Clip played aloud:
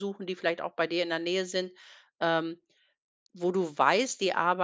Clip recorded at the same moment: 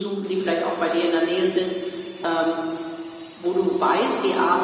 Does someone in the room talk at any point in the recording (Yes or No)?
No